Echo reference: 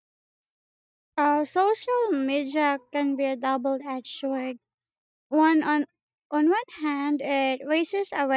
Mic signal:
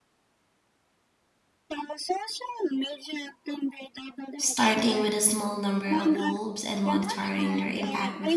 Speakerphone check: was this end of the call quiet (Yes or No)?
No